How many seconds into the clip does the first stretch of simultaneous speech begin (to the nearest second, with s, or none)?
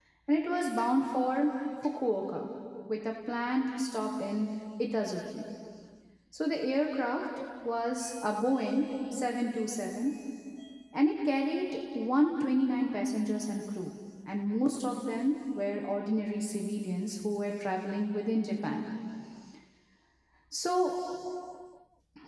none